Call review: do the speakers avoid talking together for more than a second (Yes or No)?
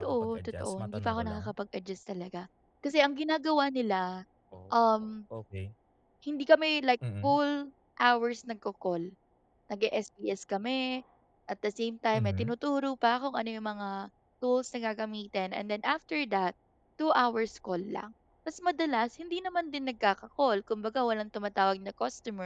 No